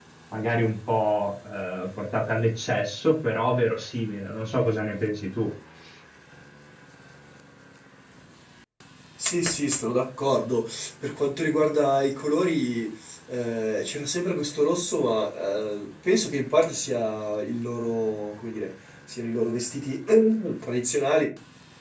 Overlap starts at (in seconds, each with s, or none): none